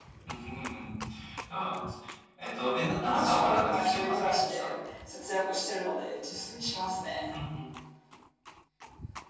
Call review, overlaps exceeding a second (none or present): present